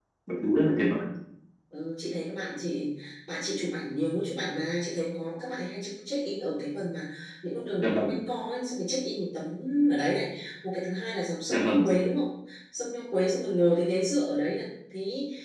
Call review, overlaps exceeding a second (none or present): none